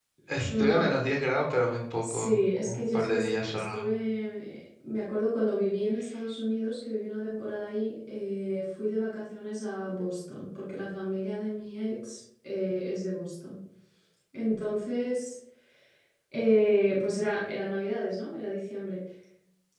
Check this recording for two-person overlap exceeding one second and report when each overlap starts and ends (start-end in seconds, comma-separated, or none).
2.0-3.7